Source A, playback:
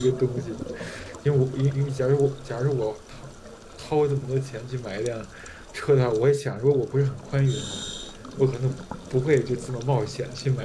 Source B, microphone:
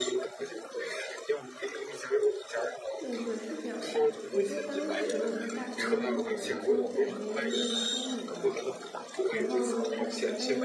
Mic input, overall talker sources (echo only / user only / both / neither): both